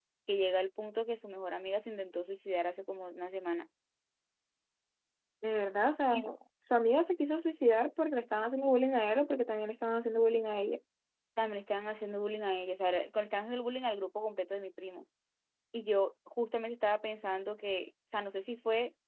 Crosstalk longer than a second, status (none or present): none